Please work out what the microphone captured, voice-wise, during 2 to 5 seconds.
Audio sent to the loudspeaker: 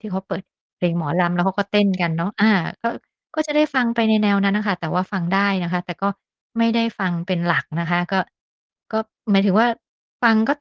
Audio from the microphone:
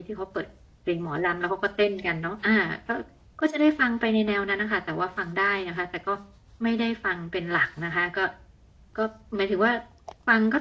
echo only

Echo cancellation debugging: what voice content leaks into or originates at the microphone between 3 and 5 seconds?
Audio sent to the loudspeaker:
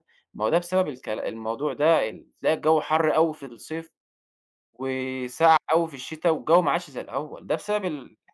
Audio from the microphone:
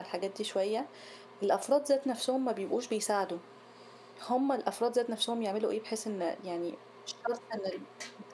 user only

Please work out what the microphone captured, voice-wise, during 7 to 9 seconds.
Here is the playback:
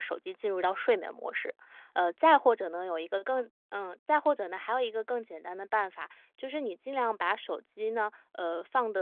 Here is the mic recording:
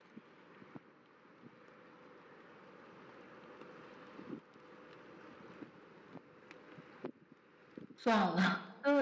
user only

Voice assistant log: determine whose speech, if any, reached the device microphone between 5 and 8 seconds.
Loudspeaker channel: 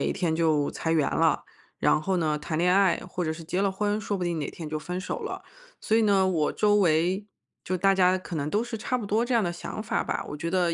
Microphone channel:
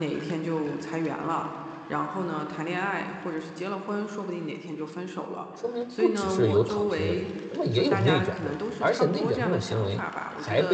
both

